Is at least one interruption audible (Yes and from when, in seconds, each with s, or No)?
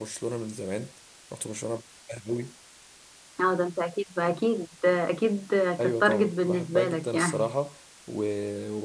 Yes, from 5.8 s